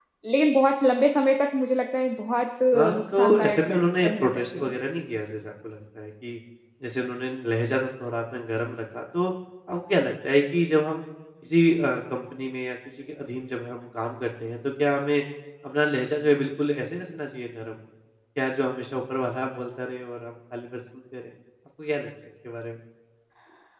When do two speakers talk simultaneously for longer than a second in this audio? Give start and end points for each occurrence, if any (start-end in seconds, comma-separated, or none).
2.9-4.7